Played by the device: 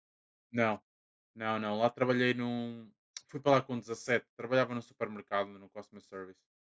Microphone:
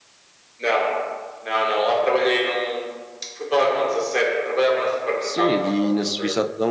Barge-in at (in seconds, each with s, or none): 5.2 s